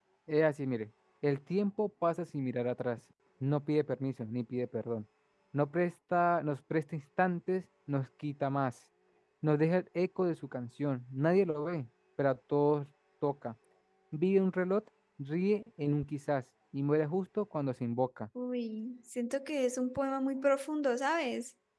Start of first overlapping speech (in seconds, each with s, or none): none